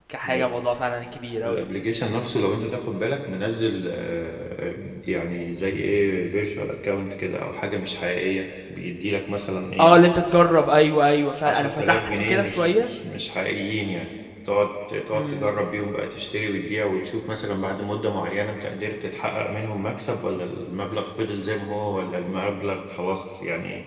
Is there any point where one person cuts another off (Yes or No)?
Yes